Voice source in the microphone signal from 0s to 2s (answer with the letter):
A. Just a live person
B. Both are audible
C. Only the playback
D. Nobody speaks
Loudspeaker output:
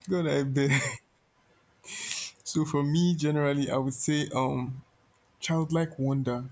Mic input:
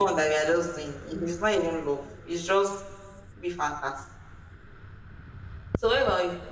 A